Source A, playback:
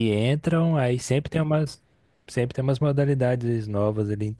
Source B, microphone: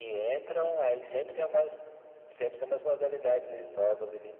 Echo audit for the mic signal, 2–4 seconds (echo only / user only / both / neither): echo only